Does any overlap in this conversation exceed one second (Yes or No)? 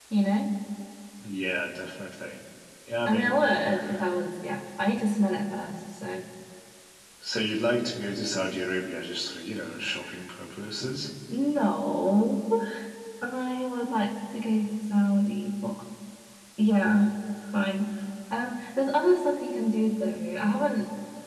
No